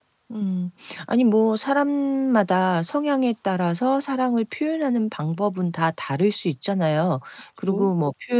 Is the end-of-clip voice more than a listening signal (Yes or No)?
No